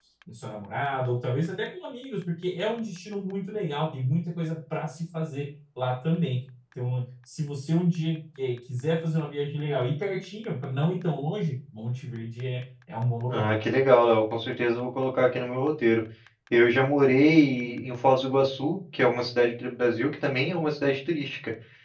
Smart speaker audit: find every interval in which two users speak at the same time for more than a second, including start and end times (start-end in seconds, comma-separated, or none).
none